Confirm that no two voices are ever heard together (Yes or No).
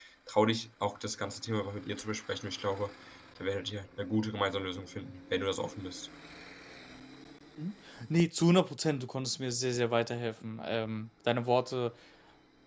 Yes